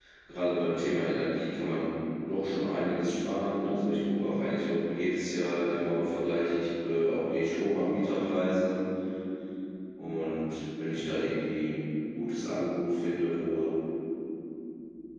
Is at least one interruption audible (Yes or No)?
No